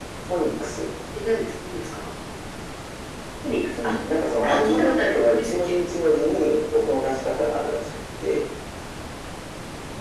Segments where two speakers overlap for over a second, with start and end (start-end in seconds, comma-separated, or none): 4.4-5.8